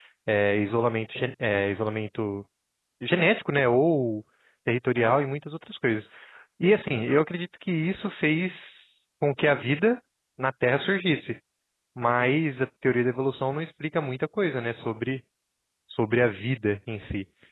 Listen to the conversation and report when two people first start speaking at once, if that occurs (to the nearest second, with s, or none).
none